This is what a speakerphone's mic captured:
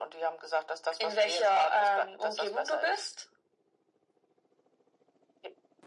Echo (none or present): present